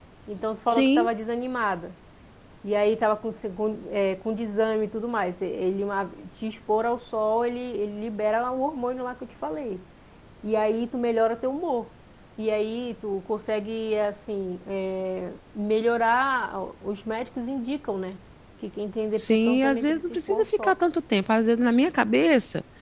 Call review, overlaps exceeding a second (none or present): present